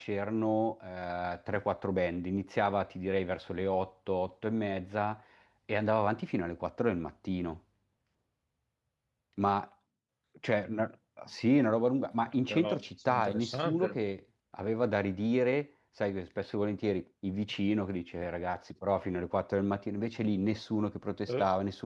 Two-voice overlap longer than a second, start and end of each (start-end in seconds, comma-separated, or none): 12.2-14.0